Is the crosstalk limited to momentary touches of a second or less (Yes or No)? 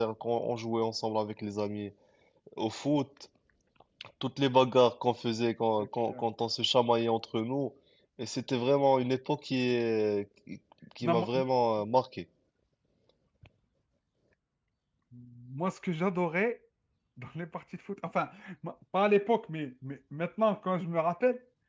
Yes